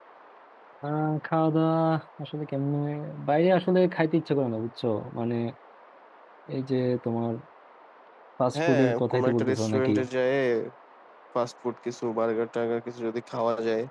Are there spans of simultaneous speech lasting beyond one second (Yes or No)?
Yes